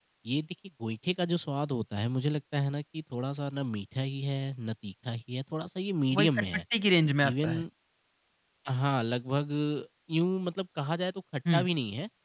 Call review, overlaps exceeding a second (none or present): none